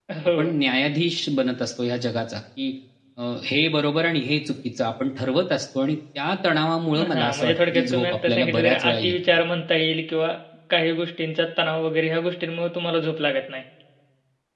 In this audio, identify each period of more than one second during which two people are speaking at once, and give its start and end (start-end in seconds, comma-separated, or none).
7.0-9.2